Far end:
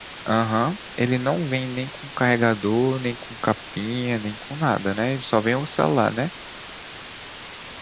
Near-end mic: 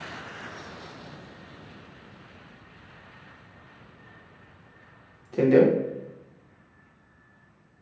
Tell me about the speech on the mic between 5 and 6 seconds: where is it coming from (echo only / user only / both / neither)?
user only